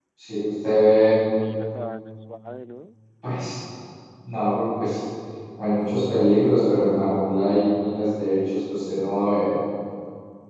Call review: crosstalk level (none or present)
none